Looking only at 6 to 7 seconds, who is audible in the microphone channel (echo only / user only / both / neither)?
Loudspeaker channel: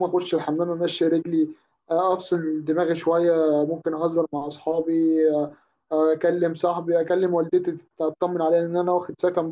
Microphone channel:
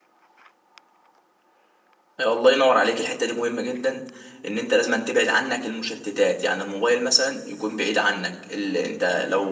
user only